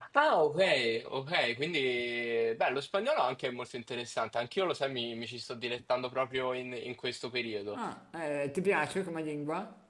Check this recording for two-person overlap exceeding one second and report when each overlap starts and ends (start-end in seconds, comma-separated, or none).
none